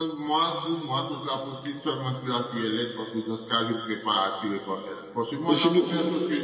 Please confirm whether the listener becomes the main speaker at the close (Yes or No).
No